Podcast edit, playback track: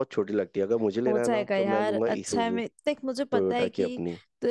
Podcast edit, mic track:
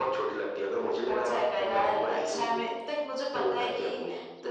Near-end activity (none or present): none